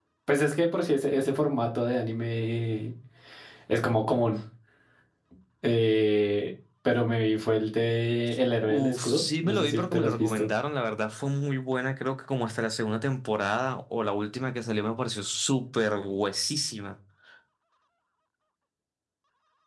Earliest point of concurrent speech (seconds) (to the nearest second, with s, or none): 9 s